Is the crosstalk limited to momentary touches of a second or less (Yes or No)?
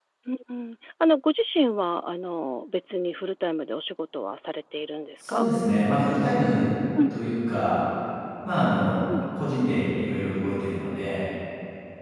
Yes